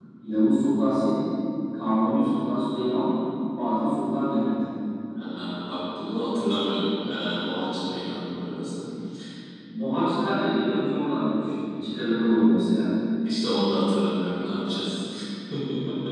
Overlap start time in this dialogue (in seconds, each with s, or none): none